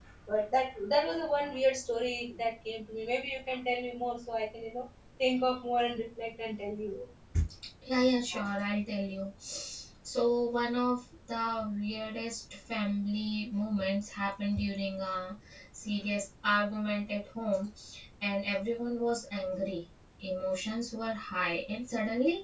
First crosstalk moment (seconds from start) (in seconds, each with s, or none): none